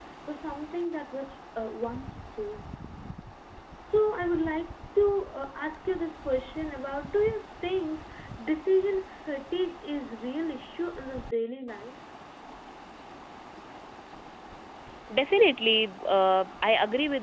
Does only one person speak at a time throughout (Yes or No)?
Yes